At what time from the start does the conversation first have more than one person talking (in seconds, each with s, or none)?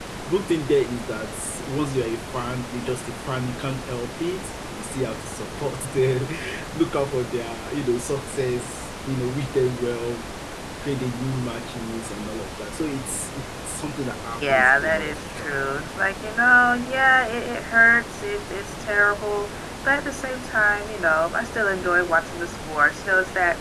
14.4 s